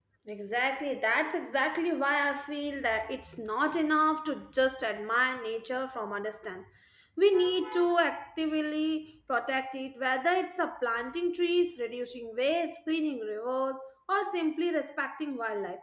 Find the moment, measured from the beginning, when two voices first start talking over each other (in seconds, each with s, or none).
none